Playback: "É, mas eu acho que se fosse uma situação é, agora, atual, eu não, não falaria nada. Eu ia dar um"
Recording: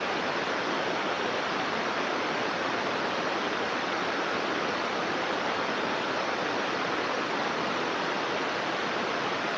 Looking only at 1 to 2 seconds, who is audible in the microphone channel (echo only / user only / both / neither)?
neither